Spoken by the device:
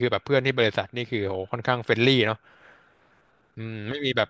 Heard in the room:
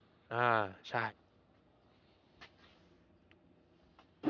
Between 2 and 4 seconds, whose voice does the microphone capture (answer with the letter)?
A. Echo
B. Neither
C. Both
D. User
B